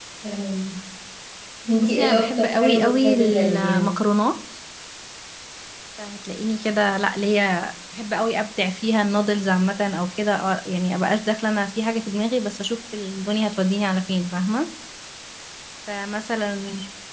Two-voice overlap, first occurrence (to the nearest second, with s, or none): 2 s